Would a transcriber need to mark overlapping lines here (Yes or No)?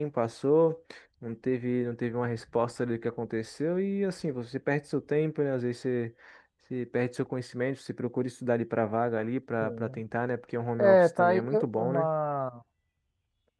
Yes